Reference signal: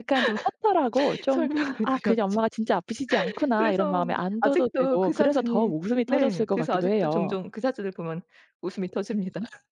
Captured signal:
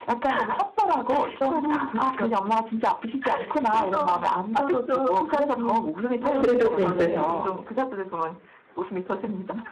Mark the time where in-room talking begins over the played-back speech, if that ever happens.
6.4 s

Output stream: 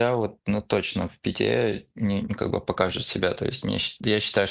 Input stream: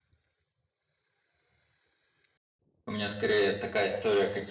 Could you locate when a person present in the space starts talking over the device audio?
2.9 s

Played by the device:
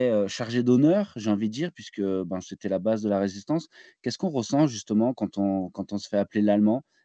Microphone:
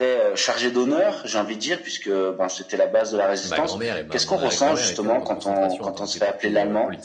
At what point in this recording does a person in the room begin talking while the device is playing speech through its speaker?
3.4 s

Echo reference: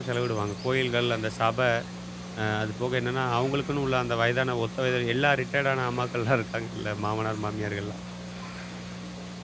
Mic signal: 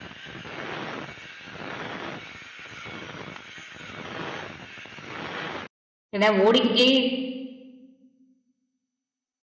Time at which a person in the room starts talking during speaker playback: 6.1 s

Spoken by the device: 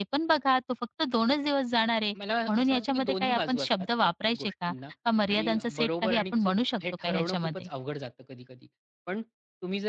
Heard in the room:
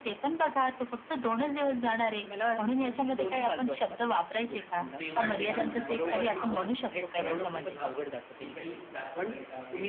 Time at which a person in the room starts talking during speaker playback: 5.0 s

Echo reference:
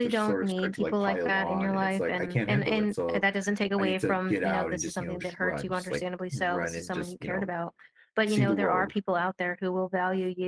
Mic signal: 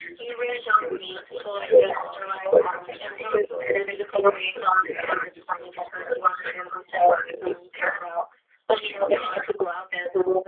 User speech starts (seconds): none

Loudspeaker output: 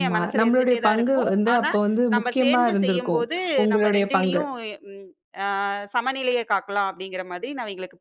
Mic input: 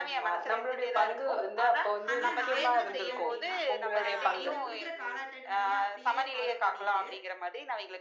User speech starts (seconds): 2.1 s

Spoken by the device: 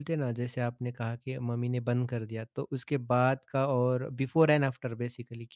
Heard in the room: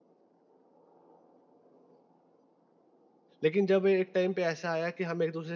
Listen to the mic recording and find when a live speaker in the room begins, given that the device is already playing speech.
3.4 s

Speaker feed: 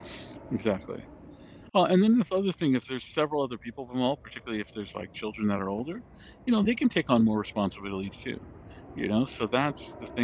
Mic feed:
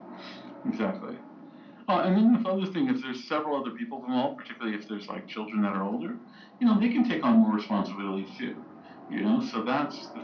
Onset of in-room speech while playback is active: none

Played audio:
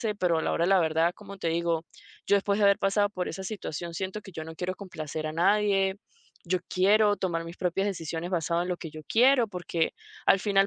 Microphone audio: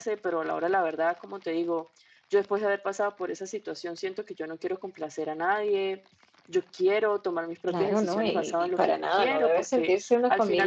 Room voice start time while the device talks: 7.6 s

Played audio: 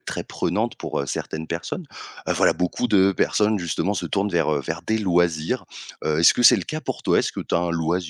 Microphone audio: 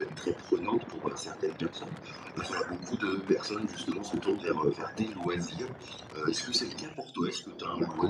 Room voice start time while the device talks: none

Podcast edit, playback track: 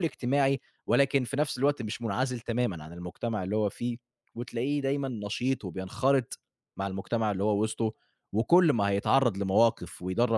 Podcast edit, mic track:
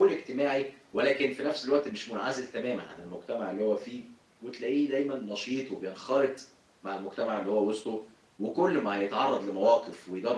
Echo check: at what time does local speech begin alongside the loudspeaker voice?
none

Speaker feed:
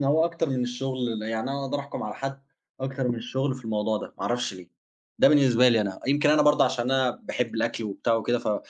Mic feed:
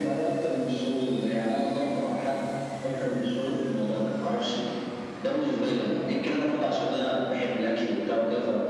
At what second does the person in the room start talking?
none

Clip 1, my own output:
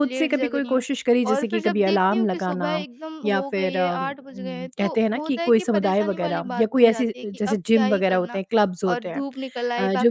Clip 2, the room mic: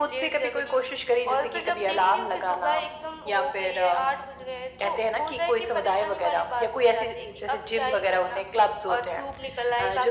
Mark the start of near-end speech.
none

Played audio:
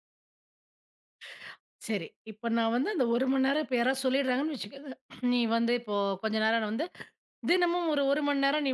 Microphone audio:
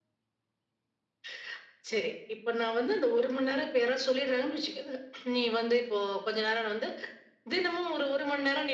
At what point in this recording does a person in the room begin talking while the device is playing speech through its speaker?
none

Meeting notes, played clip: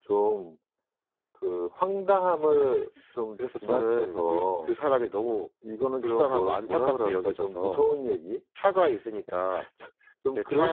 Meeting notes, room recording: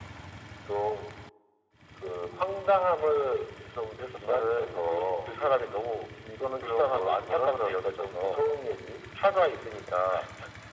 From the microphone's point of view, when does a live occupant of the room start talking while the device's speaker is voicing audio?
none

